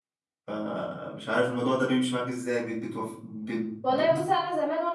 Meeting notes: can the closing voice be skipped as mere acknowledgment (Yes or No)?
No